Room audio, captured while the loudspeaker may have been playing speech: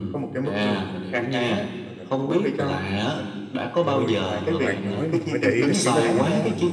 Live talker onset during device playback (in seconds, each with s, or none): 3.8 s